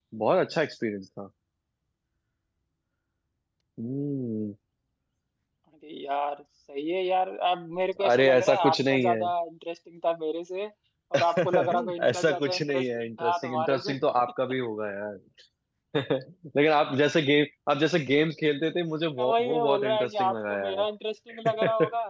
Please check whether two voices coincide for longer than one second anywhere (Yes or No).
Yes